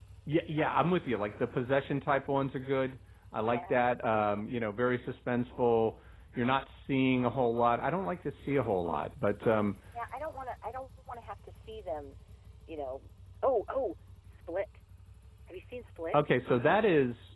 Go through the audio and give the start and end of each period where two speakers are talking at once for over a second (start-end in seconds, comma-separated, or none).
none